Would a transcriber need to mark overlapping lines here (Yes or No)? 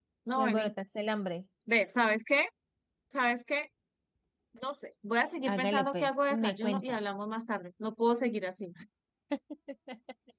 Yes